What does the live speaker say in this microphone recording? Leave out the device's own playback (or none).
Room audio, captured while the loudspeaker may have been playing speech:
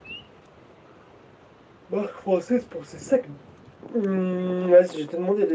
none